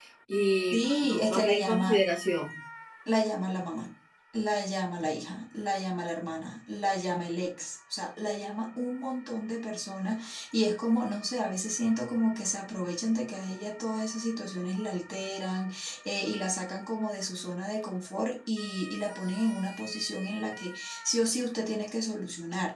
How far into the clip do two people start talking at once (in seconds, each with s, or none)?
0.7 s